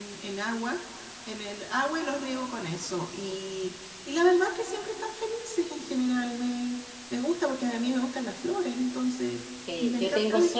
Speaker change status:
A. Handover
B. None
A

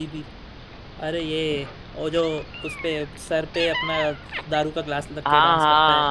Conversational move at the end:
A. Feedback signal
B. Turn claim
B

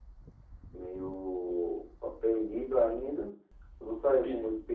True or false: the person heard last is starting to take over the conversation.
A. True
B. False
B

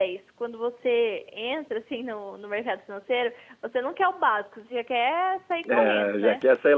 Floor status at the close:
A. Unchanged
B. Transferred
B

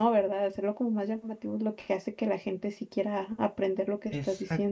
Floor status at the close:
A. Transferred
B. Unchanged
A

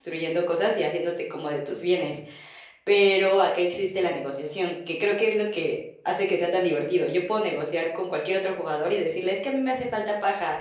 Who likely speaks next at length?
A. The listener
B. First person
B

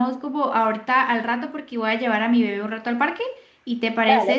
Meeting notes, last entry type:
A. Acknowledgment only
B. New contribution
B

